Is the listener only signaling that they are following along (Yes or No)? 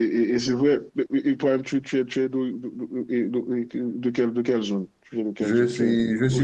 No